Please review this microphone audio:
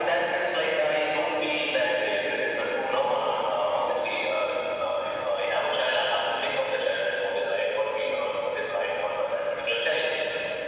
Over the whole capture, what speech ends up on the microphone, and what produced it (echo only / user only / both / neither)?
echo only